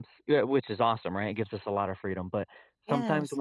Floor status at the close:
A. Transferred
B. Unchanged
B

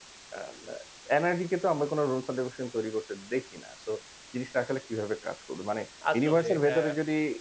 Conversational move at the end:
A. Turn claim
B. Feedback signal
B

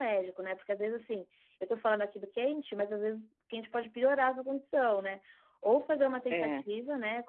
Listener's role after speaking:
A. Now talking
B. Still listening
B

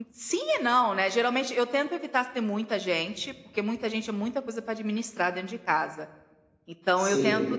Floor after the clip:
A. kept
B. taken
A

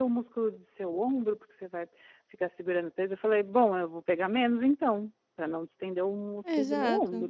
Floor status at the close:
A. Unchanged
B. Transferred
B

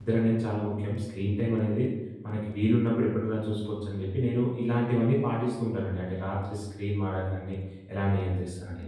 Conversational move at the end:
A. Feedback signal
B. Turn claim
B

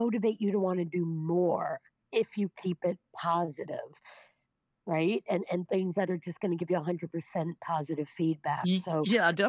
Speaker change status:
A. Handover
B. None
A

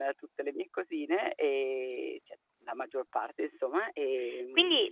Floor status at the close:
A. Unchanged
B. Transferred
B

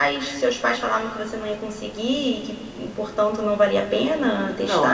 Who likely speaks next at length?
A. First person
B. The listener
B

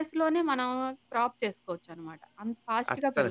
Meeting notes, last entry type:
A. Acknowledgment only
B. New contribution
B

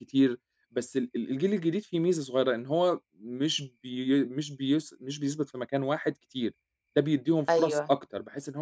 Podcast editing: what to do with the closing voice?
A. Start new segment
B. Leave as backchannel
B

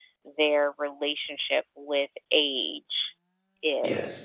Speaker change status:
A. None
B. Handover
B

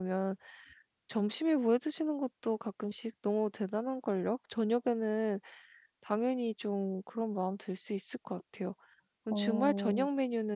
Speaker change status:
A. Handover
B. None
B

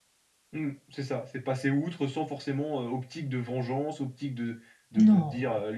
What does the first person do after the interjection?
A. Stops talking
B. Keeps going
B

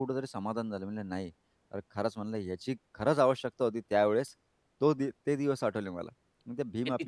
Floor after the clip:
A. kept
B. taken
A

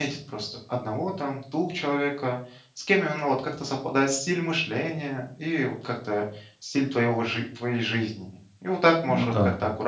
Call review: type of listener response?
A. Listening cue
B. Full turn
A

